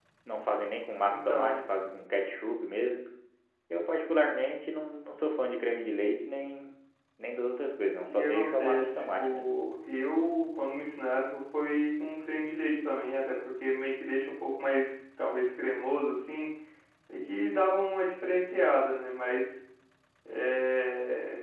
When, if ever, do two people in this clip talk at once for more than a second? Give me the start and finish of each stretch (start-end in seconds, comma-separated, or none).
8.1-9.5